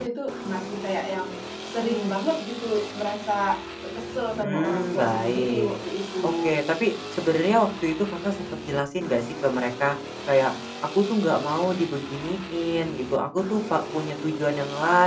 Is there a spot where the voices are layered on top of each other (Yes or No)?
Yes